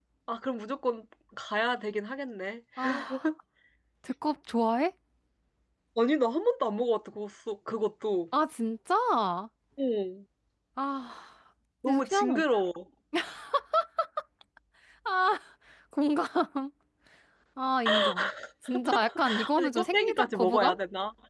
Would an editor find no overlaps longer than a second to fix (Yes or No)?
No